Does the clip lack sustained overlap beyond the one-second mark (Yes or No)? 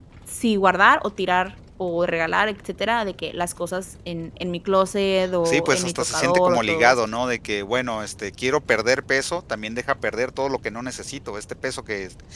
No